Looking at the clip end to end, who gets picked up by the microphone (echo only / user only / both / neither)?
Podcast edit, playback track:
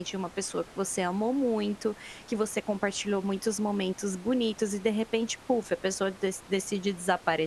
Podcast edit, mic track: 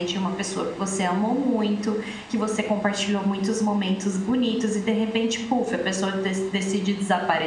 echo only